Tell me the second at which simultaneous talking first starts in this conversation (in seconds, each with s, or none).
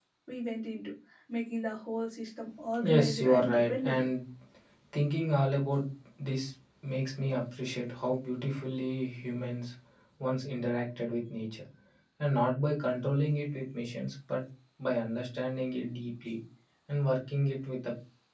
2.7 s